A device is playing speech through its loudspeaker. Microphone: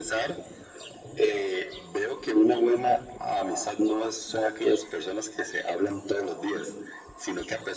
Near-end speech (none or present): none